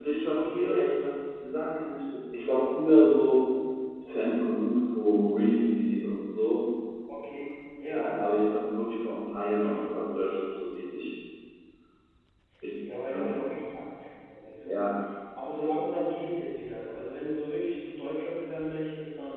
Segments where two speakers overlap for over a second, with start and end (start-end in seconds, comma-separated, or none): none